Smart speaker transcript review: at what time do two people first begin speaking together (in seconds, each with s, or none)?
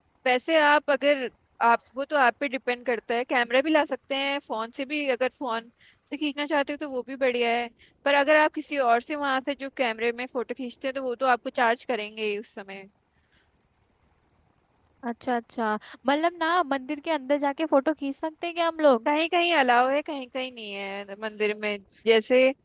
none